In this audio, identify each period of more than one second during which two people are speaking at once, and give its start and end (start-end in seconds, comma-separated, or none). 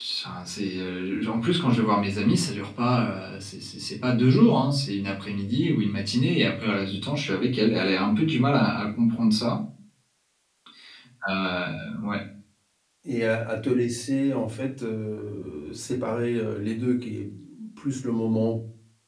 none